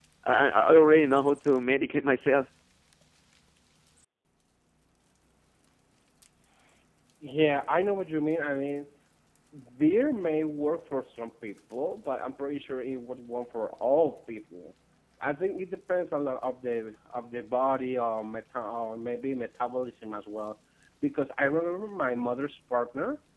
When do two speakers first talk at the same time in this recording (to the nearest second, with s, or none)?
none